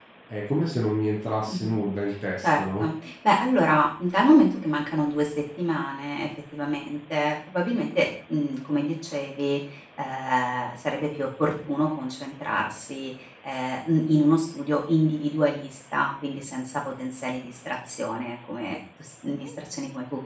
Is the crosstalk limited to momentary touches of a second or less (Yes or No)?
Yes